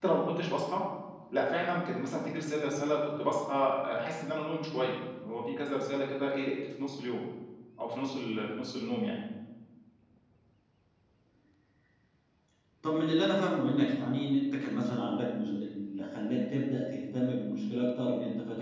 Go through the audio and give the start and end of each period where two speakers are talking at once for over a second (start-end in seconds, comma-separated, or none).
none